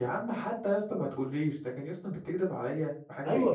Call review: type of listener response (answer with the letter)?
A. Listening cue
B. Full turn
B